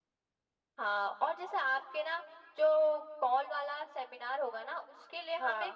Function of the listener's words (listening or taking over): listening